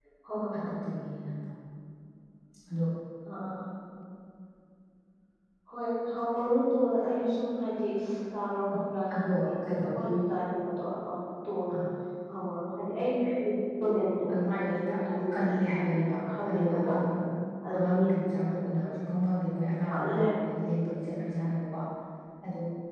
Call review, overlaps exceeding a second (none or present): present